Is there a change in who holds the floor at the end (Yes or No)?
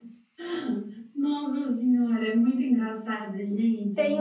Yes